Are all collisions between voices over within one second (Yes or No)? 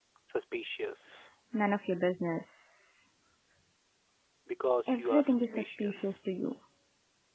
No